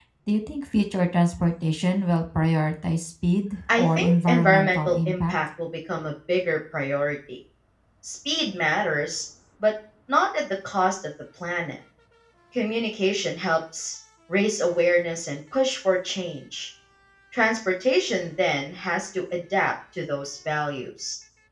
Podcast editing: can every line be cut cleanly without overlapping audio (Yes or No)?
No